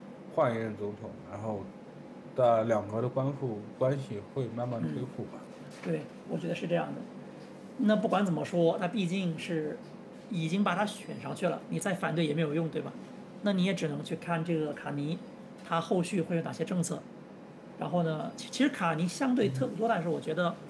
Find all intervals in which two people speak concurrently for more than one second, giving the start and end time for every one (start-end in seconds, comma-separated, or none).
none